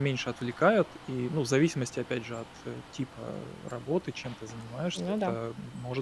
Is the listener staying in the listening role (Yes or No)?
Yes